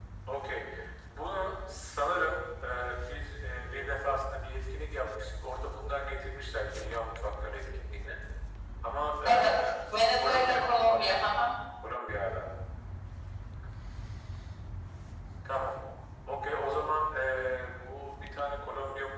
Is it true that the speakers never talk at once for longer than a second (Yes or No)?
No